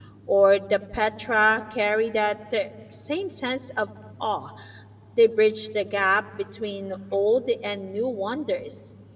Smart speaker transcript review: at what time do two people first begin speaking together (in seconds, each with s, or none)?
none